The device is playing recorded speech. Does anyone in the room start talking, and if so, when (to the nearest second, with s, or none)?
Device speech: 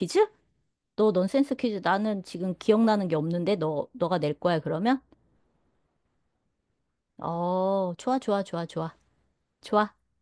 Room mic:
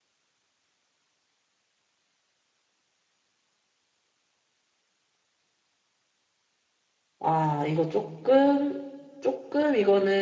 7 s